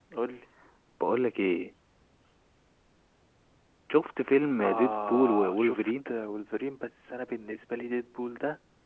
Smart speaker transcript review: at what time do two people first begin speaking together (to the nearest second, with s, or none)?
5 s